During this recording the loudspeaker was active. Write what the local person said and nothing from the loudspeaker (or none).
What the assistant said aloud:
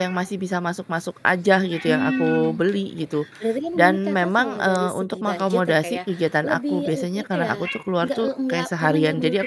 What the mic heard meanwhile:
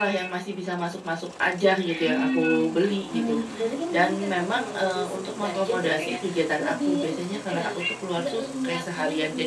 Mmm, mhm mhm.